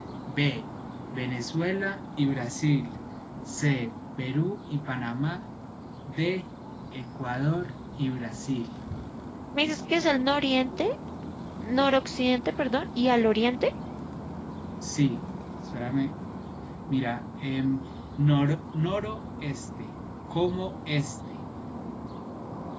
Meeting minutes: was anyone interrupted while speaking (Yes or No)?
No